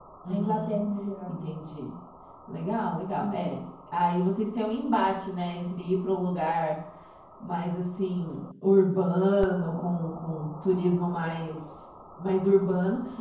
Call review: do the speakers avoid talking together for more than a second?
Yes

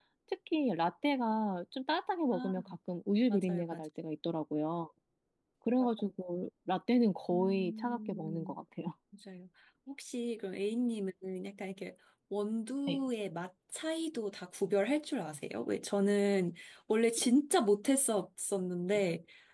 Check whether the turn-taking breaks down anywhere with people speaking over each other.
Yes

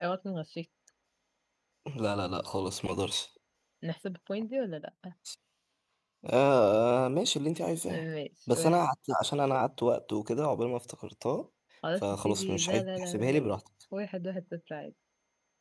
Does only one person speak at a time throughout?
No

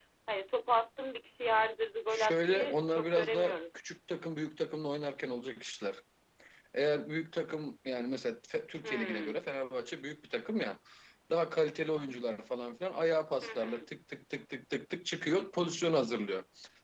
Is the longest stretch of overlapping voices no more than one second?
No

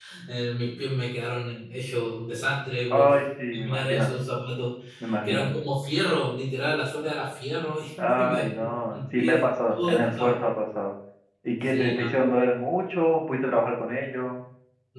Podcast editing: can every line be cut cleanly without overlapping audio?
No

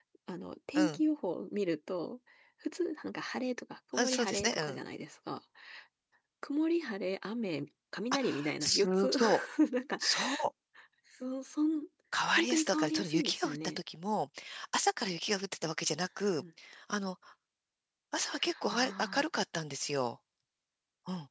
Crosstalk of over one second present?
Yes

